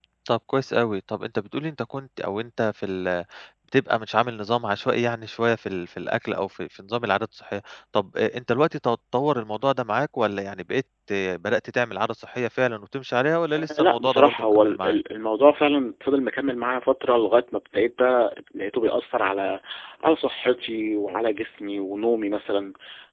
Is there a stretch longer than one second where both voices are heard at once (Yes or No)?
Yes